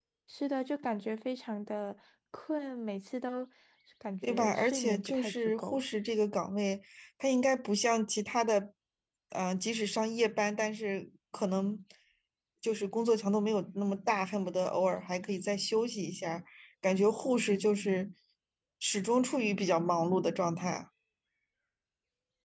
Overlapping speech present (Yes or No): Yes